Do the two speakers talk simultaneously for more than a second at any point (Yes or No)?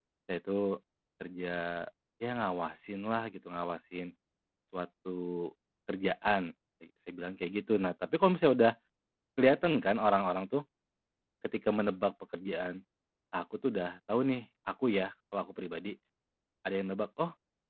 No